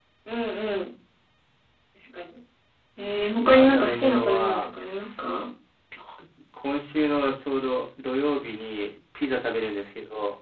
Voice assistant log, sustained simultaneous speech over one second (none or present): present